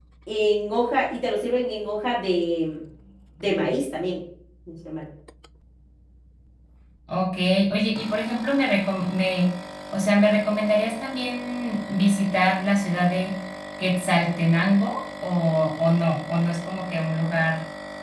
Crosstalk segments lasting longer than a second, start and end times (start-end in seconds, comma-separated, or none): none